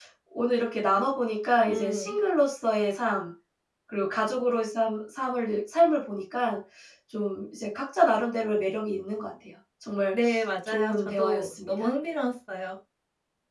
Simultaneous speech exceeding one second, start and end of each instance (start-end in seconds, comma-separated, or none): 10.7-11.9